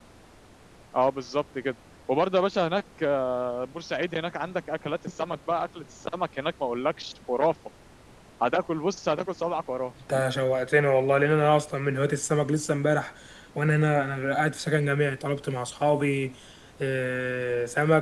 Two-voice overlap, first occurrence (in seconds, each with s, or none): none